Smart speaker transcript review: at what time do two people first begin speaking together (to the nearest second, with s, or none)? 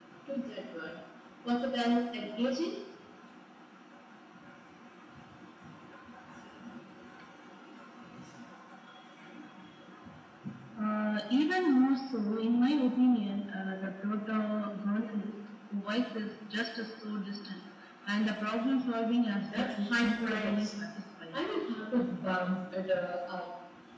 19 s